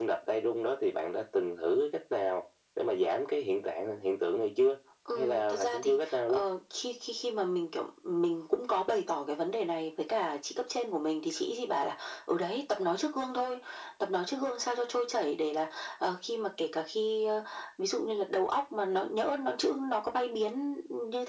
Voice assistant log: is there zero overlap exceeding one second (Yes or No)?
No